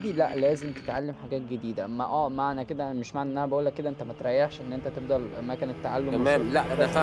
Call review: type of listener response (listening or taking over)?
taking over